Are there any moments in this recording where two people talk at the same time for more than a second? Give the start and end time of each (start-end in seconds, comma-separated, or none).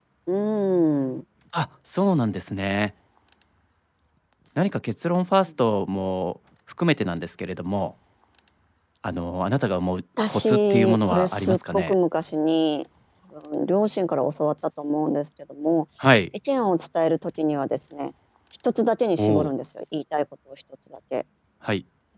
10.3-11.9